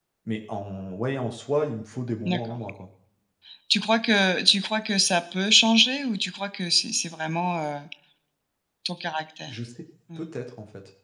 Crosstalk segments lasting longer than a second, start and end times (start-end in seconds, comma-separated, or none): none